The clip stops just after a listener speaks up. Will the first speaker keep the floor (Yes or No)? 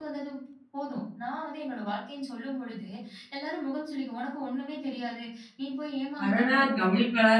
No